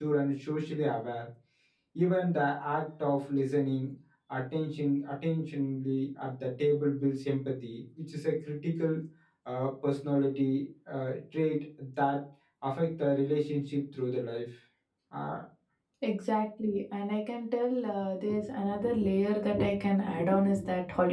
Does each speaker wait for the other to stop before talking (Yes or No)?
Yes